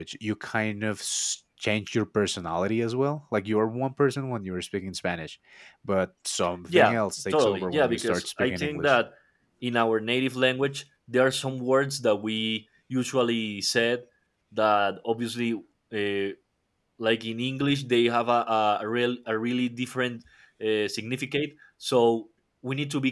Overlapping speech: Yes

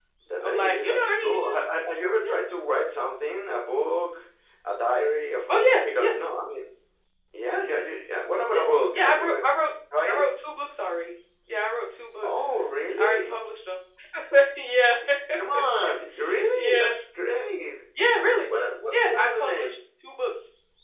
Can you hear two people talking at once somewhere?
Yes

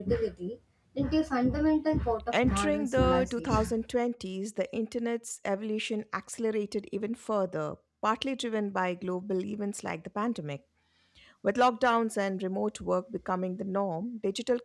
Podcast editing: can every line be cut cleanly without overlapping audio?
No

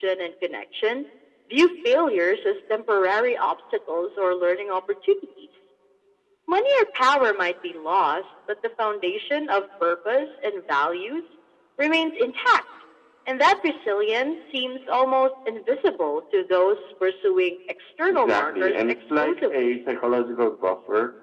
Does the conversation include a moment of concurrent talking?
Yes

